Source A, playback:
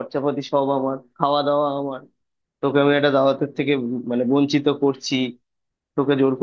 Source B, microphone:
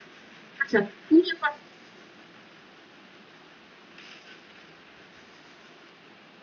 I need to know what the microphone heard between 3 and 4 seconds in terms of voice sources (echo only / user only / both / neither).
neither